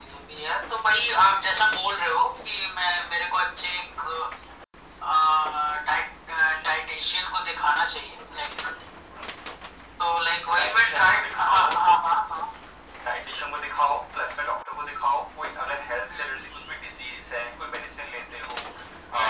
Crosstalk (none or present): present